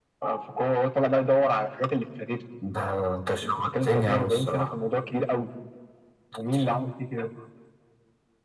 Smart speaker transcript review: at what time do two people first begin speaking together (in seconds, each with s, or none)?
3.4 s